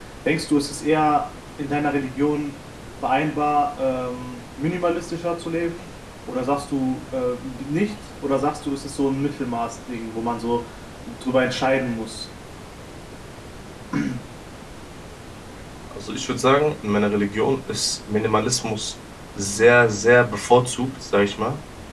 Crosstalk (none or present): none